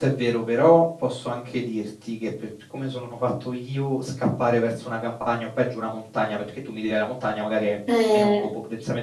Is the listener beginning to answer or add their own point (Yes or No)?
No